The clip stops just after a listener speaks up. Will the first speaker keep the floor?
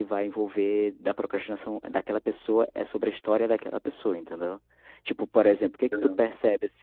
Yes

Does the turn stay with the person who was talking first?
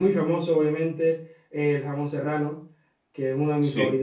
Yes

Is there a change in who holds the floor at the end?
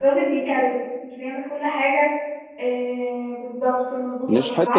No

